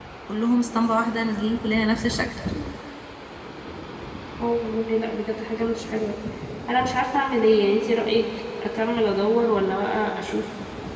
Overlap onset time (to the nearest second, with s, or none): none